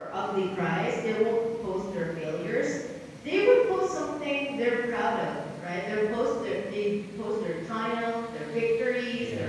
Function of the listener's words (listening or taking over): listening